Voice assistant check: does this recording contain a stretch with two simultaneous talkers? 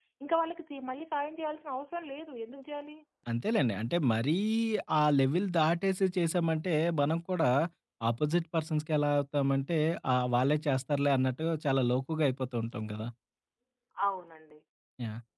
No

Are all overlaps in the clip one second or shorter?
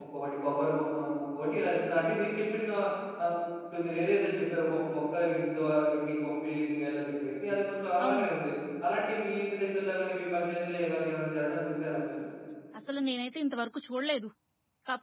Yes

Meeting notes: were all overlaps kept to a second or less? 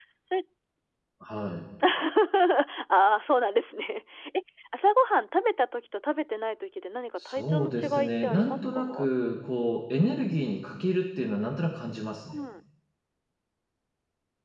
No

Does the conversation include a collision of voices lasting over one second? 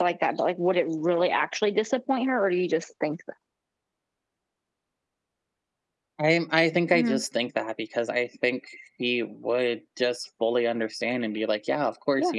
No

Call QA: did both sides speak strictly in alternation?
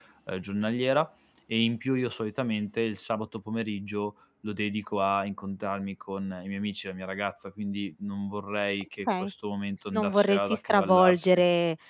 No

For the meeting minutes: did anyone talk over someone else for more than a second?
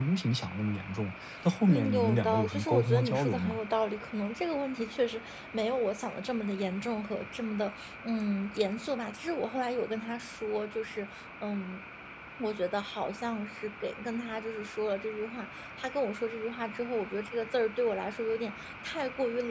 Yes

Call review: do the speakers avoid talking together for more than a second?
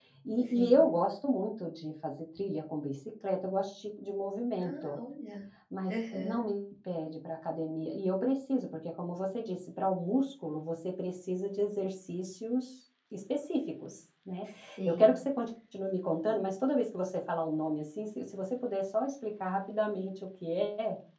Yes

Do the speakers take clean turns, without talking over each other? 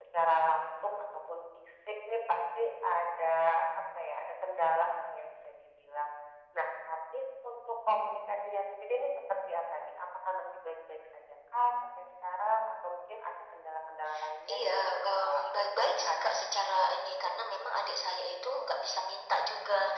No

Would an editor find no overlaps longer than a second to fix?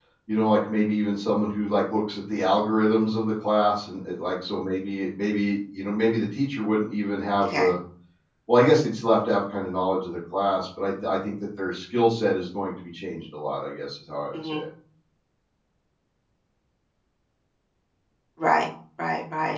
Yes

